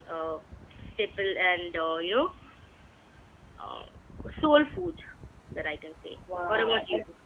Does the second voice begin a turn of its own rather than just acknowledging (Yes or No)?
Yes